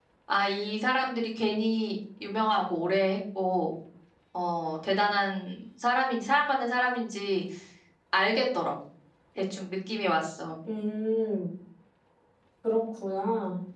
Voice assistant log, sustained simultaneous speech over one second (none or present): none